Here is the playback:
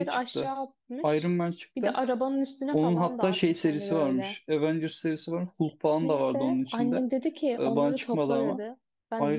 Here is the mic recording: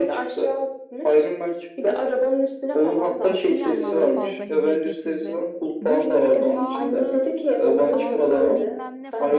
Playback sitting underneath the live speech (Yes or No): No